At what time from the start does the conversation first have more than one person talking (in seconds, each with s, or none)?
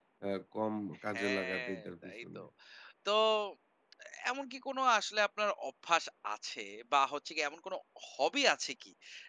1.1 s